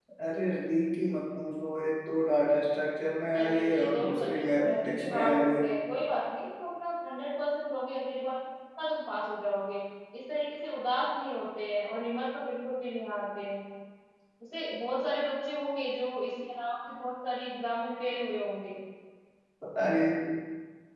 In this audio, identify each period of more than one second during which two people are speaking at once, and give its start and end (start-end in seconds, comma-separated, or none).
3.4-5.5